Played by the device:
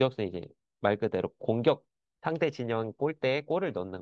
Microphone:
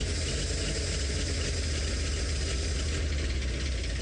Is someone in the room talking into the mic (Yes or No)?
No